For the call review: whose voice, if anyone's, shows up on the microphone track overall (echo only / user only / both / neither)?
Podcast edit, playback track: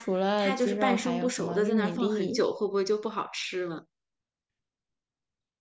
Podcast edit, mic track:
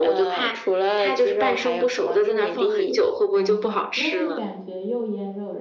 both